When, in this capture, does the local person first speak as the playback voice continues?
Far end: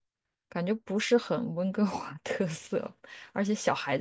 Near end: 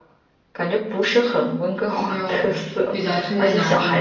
1.9 s

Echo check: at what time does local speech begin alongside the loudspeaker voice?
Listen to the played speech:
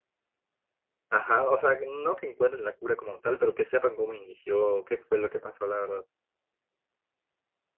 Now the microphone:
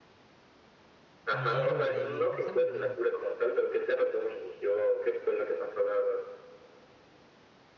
1.3 s

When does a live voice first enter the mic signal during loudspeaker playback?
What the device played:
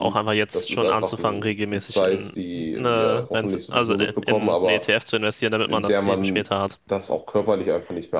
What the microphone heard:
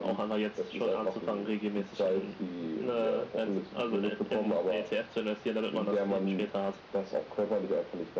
none

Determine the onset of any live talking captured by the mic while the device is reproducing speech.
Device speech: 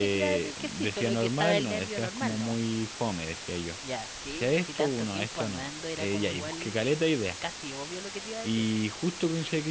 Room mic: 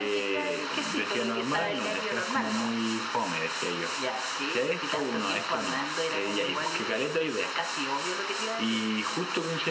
none

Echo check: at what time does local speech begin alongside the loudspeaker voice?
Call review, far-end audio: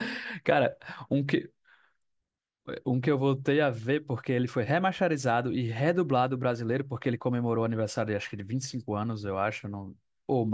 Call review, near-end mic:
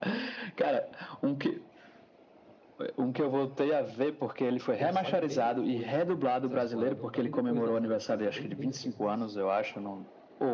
4.7 s

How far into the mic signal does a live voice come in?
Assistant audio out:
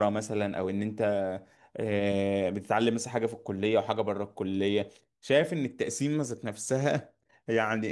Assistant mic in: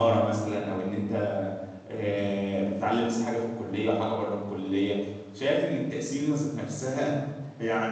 none

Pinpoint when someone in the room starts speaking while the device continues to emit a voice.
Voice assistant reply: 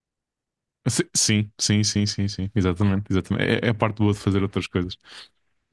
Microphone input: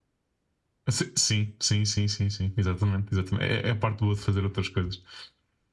none

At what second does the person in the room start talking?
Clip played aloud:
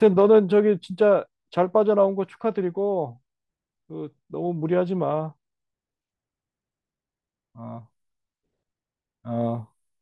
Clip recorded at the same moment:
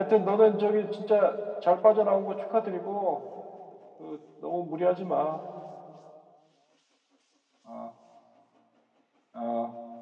none

